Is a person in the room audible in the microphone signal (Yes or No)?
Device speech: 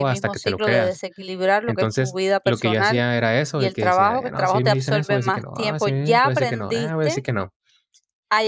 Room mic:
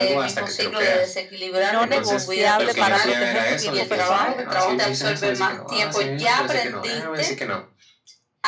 Yes